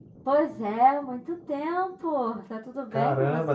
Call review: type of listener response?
taking over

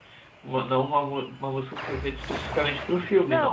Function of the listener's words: taking over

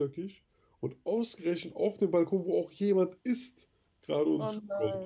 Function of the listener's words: listening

